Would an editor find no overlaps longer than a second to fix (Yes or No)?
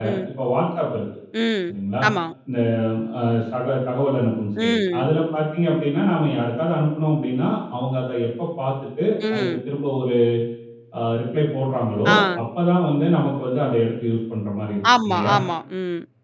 Yes